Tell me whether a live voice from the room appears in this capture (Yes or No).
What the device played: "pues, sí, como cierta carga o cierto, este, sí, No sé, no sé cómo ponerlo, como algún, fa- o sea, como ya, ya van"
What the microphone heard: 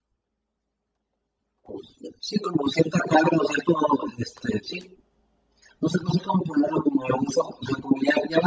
No